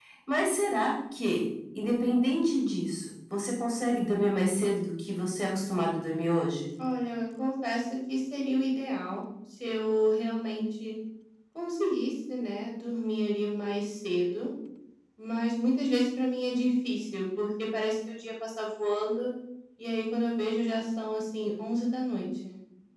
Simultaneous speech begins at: none

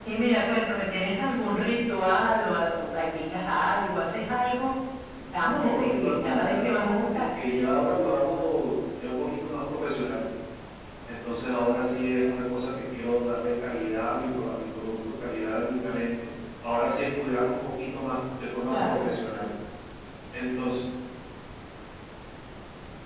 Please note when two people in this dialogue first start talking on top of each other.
5.4 s

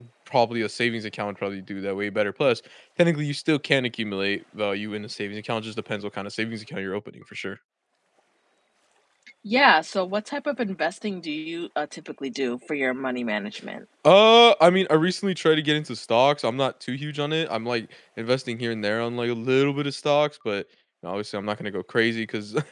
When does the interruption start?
none

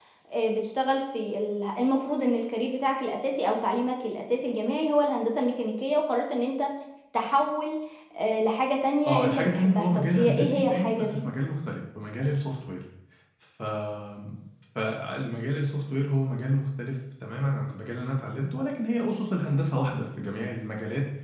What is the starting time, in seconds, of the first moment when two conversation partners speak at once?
9.1 s

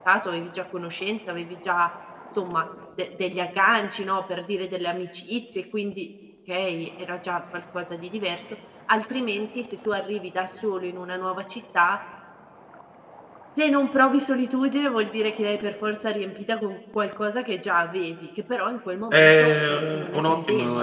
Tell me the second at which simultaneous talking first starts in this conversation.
19.1 s

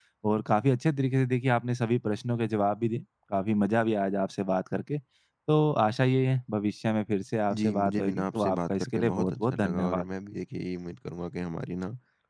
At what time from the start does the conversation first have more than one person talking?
7.5 s

